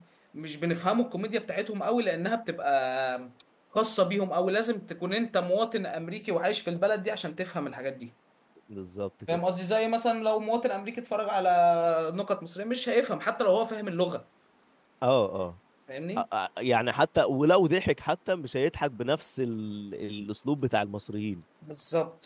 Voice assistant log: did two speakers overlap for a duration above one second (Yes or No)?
No